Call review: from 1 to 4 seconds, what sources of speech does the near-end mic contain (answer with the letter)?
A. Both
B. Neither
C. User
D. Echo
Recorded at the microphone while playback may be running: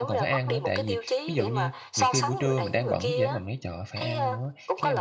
A